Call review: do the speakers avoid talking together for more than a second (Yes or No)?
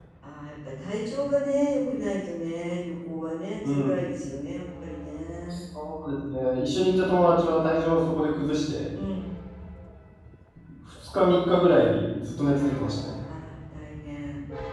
Yes